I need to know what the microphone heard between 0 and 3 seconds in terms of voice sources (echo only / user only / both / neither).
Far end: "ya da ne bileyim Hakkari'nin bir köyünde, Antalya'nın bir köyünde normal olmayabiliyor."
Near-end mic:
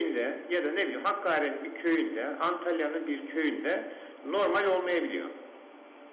echo only